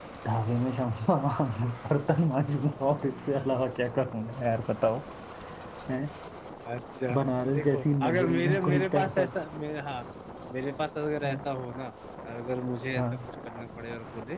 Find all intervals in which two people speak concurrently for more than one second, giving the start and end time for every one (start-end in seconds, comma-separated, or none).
7.5-9.2